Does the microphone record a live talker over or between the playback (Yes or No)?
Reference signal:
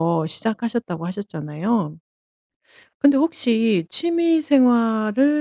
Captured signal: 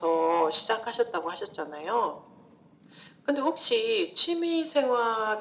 No